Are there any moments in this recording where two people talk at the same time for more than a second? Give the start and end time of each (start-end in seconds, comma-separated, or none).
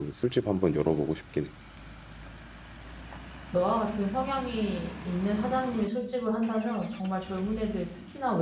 none